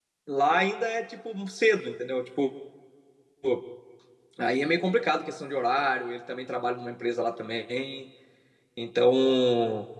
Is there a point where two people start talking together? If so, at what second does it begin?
none

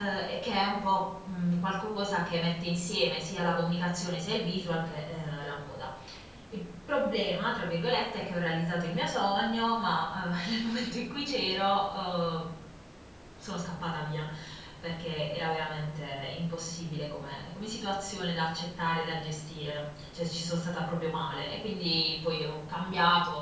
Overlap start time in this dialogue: none

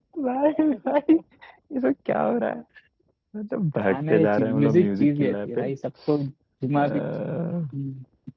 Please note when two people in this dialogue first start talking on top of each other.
3.8 s

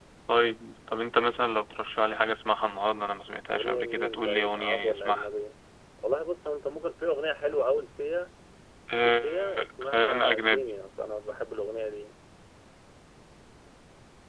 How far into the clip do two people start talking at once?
3.5 s

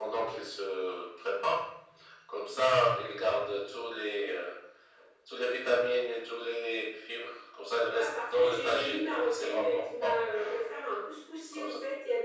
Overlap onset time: 8.0 s

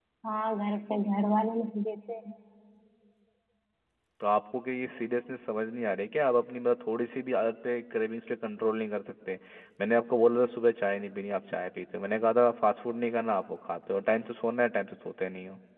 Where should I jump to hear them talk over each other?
none

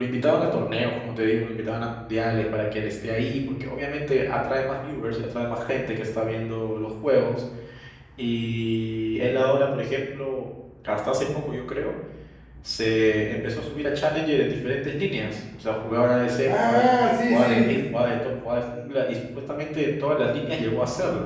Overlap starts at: 16.4 s

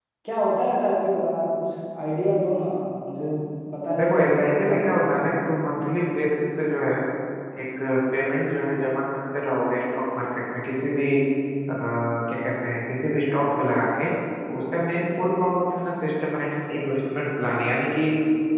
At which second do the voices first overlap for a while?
4.0 s

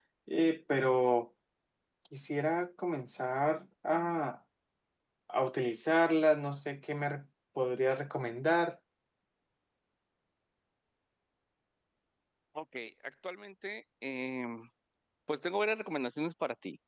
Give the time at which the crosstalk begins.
none

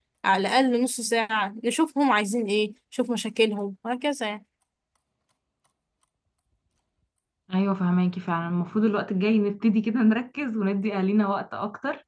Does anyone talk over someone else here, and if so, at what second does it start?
none

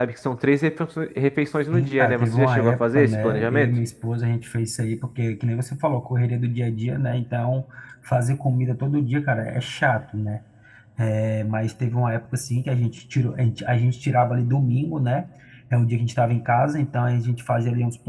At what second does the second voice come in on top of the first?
1.7 s

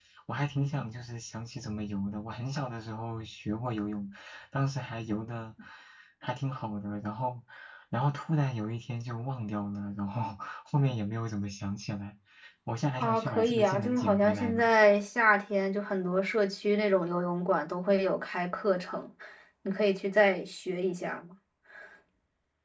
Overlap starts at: 13.0 s

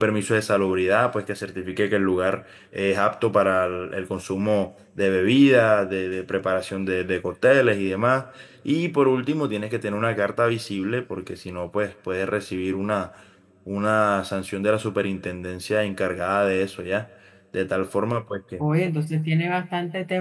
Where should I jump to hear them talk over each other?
none

